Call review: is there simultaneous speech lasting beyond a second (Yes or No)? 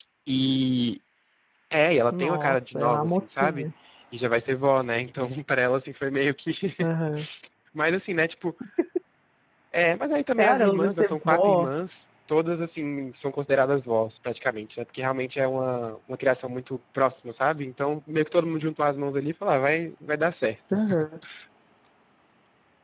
Yes